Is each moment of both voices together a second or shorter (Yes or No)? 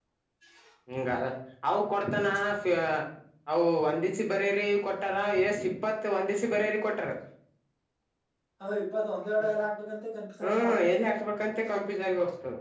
Yes